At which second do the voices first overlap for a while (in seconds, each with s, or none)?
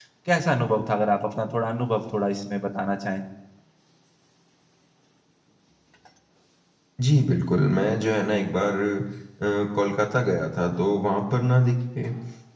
none